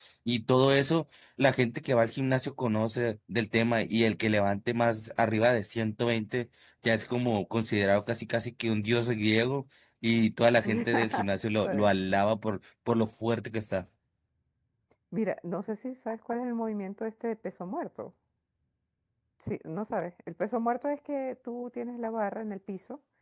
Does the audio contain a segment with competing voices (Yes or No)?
Yes